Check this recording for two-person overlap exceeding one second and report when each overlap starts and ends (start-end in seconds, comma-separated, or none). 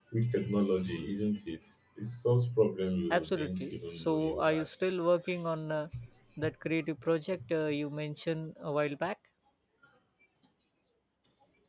3.1-4.7